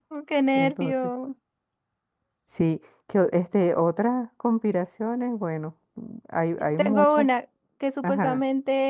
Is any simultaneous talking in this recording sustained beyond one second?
No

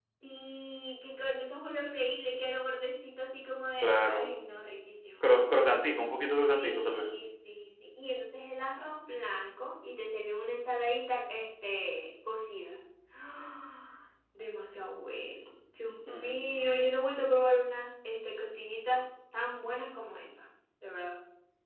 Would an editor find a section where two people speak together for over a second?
No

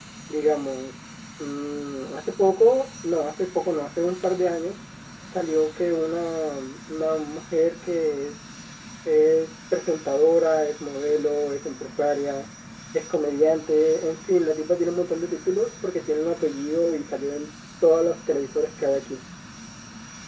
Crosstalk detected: No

